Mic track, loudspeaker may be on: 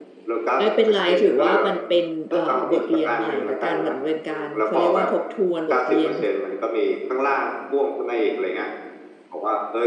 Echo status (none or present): present